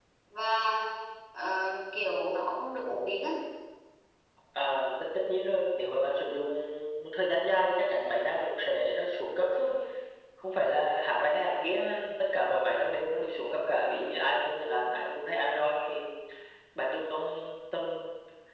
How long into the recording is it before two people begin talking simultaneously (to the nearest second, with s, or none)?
none